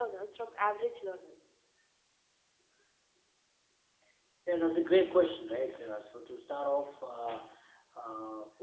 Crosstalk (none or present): none